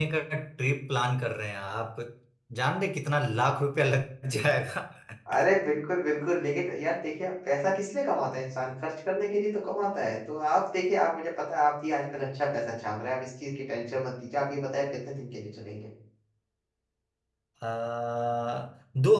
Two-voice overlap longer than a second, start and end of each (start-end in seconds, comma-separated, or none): none